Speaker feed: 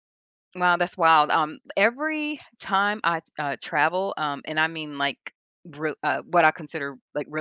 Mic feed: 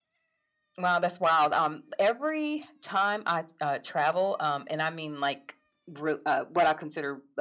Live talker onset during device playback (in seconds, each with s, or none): none